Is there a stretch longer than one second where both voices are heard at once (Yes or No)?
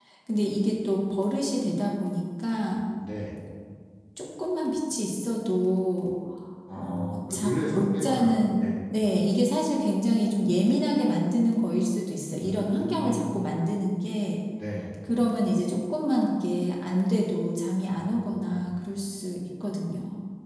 Yes